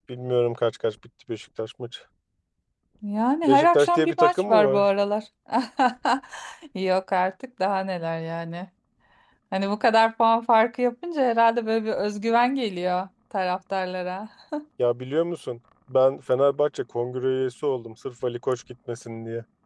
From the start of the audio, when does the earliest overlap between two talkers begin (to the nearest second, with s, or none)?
3 s